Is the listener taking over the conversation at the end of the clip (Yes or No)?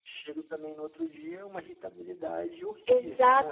Yes